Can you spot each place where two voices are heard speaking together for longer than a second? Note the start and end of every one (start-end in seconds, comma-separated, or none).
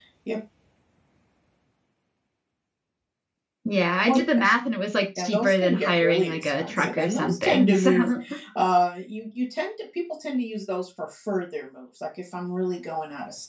5.2-7.9